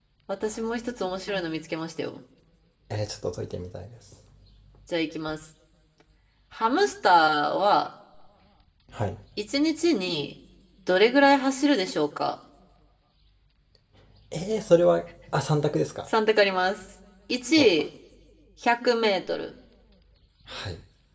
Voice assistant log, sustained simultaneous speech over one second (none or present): none